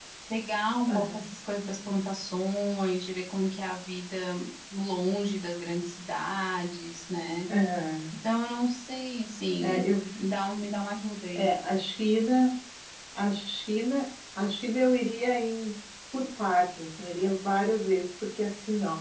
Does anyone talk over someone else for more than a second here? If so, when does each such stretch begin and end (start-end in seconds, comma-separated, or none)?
none